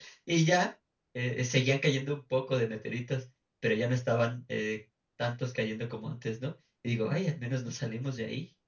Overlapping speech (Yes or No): No